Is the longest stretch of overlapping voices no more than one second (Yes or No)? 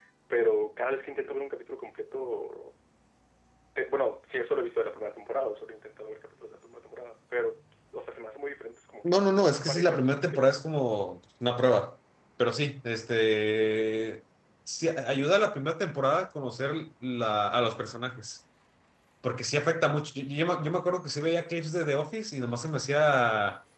No